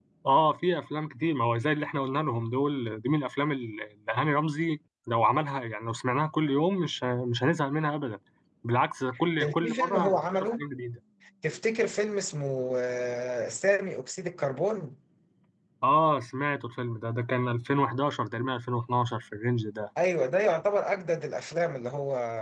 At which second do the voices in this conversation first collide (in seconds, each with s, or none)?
9.4 s